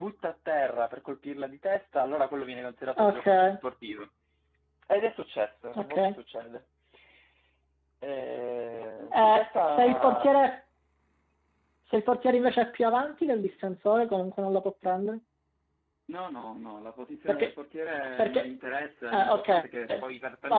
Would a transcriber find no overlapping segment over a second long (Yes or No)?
No